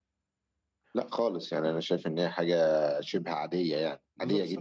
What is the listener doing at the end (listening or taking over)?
taking over